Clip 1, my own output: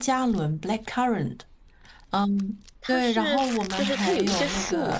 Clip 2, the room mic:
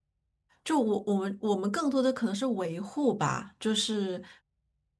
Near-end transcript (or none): 就我我们我们更多的可能是维护吧，就是